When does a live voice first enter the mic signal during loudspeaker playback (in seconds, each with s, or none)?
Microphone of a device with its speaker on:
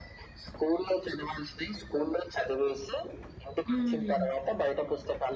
3.7 s